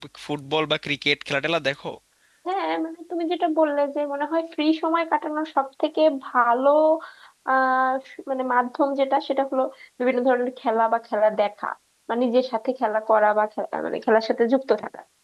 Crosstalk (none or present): none